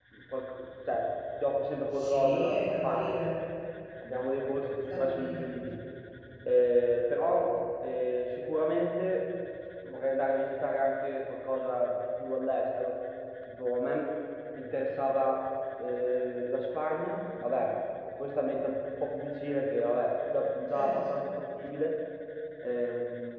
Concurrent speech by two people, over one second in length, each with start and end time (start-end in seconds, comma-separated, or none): 1.9-3.4